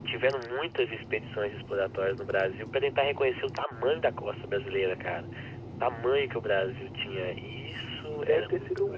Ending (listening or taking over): taking over